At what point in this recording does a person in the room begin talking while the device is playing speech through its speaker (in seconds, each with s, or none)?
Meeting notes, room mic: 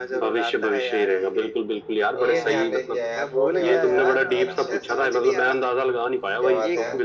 2.2 s